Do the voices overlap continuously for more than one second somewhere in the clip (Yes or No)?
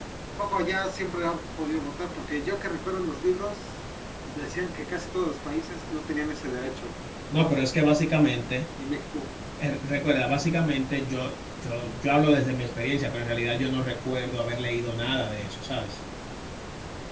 No